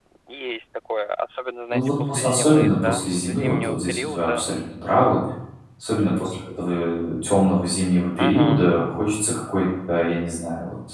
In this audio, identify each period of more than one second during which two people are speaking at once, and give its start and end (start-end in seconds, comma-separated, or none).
1.7-4.5